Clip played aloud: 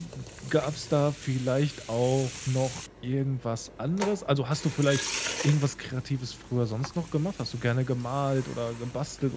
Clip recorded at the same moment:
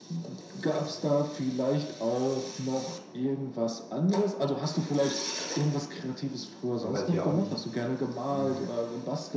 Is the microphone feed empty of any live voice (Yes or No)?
No